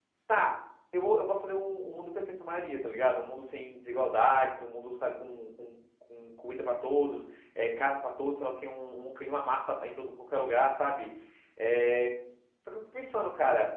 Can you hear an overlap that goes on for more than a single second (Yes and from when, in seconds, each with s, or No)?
No